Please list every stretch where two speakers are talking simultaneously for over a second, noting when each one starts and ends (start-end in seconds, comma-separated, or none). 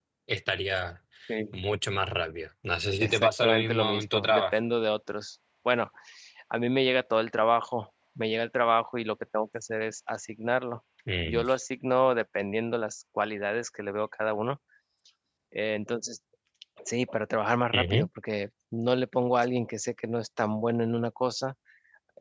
3.0-4.5